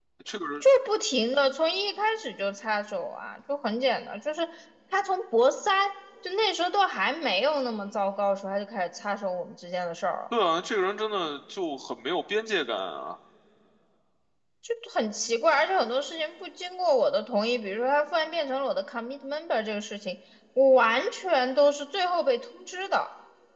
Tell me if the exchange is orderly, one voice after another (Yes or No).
Yes